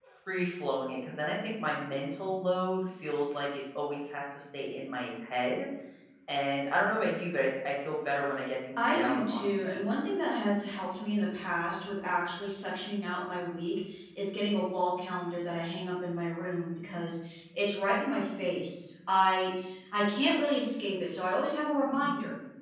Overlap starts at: 8.8 s

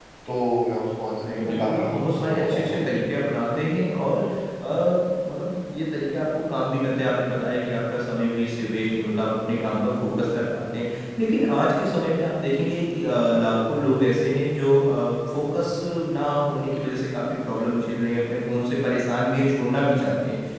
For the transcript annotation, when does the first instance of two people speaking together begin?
1.2 s

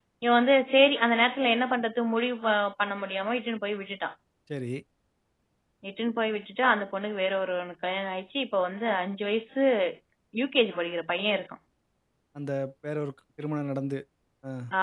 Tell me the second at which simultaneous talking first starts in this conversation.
none

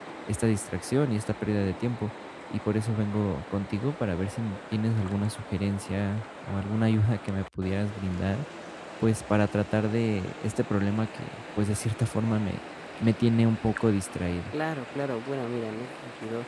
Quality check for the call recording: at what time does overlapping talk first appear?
none

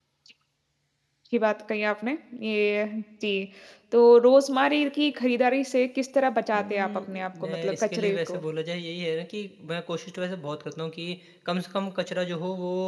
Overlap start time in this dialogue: 6.5 s

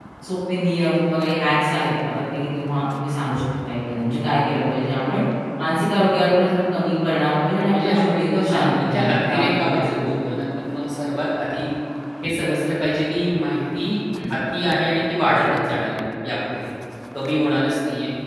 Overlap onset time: 7.7 s

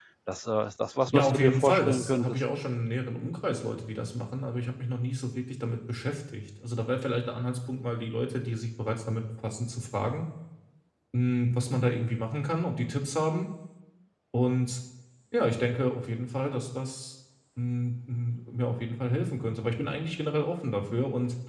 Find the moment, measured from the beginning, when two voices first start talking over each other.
1.1 s

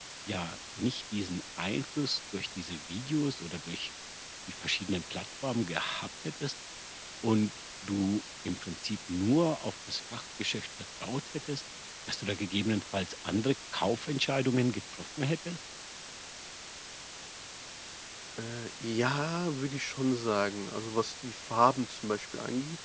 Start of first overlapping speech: none

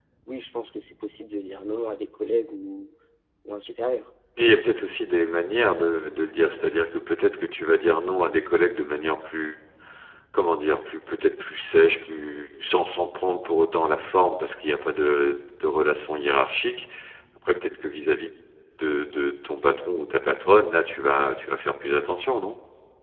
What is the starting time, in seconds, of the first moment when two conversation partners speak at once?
none

